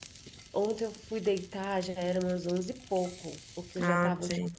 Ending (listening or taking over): listening